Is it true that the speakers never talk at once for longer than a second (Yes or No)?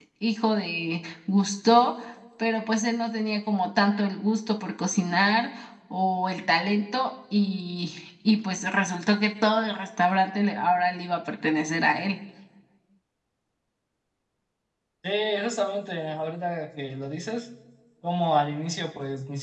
Yes